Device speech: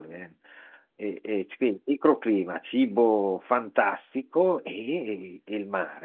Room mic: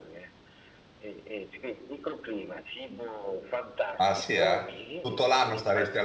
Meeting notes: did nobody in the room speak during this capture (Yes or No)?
No